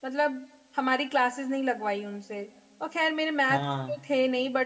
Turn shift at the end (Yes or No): No